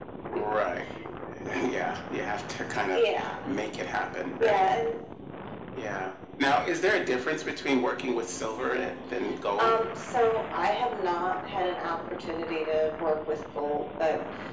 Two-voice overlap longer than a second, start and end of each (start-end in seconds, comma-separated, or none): none